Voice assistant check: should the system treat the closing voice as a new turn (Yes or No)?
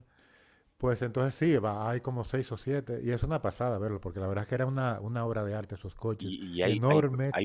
Yes